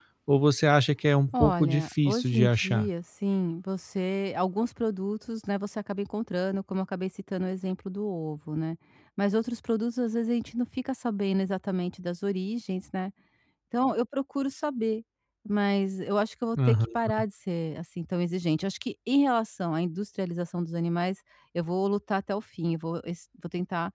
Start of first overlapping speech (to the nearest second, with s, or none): 1 s